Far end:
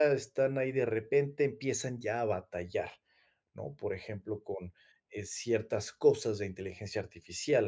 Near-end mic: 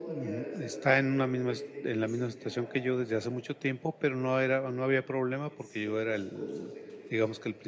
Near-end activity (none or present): present